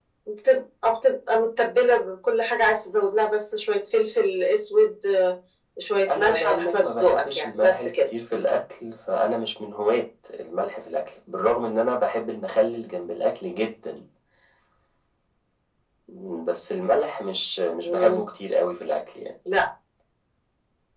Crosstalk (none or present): present